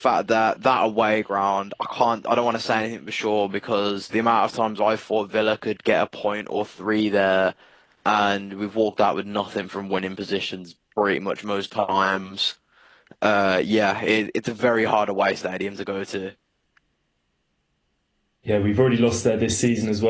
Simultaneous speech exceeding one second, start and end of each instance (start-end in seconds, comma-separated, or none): none